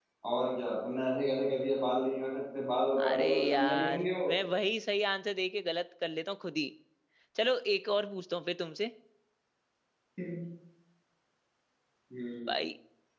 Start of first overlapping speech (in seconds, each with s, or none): 3.0 s